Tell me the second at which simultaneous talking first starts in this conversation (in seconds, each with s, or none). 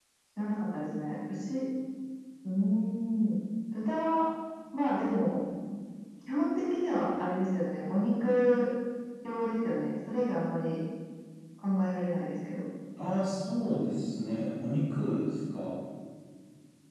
none